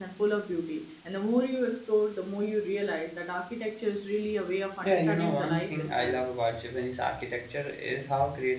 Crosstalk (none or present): present